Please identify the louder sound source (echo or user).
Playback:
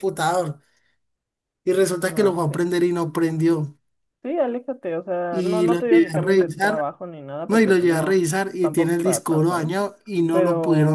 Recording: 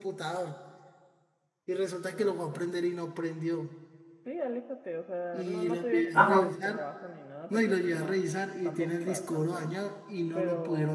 user